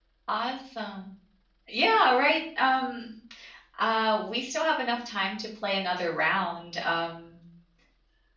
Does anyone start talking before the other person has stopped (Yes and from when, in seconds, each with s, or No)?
No